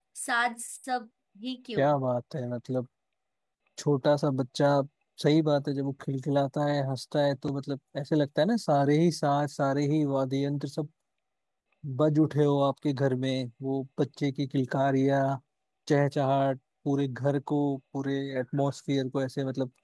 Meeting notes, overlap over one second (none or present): none